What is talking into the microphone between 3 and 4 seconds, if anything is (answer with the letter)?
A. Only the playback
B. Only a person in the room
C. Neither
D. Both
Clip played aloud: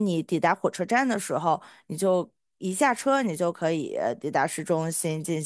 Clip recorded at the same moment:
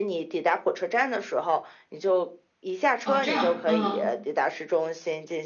D